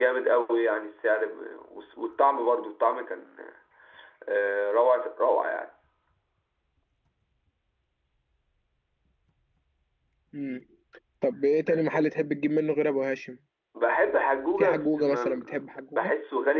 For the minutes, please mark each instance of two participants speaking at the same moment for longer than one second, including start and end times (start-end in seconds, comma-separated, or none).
14.6-16.1